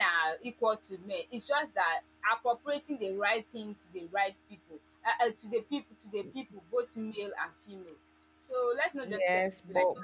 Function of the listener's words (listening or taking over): taking over